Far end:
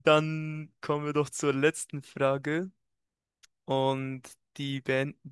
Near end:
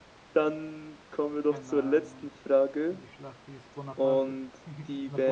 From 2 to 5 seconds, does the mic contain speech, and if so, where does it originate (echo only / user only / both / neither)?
both